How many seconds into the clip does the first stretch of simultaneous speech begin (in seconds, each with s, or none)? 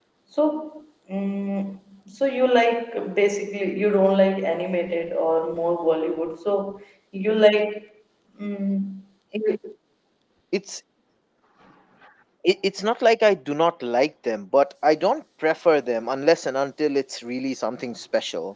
none